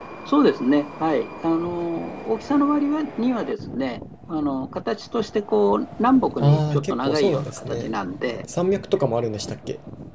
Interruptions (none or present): present